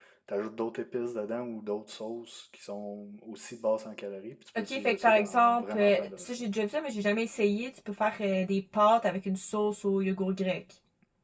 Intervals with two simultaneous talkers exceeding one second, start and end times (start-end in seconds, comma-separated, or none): 4.6-6.5